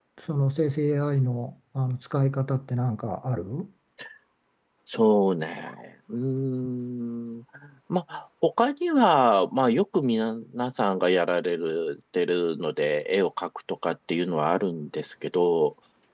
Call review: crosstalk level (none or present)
none